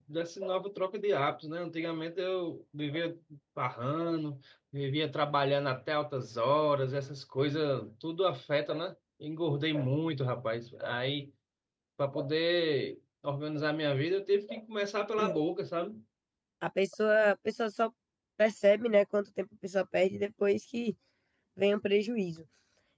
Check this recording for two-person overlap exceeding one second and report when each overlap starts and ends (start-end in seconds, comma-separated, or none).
none